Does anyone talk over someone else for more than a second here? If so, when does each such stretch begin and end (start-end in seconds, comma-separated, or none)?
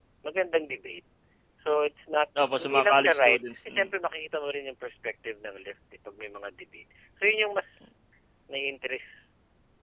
2.6-3.9